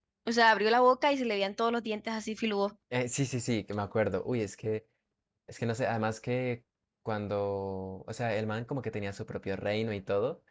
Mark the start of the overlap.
none

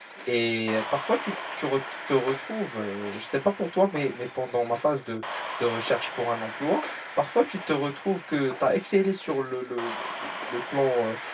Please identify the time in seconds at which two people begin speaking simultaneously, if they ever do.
none

